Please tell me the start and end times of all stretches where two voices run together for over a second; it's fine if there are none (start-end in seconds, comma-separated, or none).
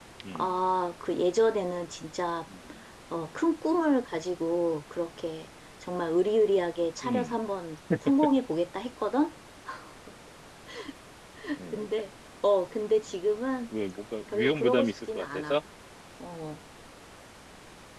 14.3-15.6